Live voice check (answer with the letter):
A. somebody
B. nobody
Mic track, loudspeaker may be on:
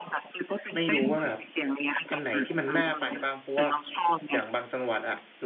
A